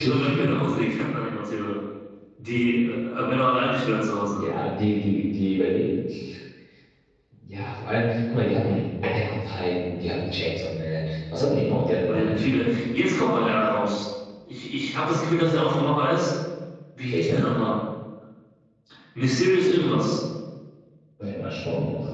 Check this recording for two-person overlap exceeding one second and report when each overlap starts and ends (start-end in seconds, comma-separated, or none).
none